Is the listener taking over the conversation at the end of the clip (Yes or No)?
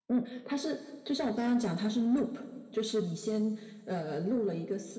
No